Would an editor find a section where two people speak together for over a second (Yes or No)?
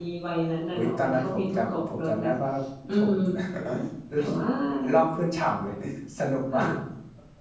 Yes